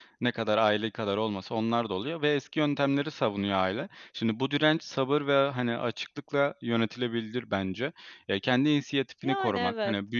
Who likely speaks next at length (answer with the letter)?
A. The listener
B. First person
B